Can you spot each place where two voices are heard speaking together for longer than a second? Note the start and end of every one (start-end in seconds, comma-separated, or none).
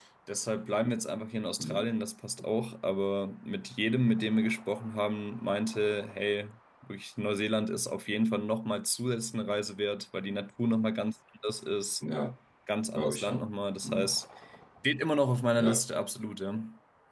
none